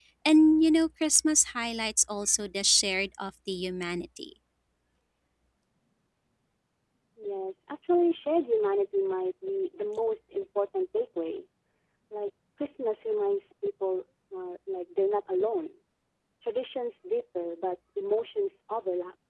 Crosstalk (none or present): none